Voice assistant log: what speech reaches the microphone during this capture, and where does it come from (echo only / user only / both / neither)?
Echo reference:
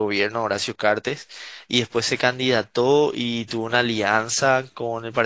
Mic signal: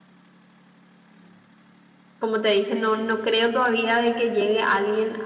user only